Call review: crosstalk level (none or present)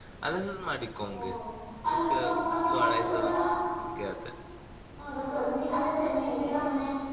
present